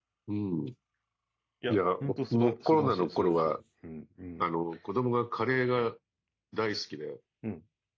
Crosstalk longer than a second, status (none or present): present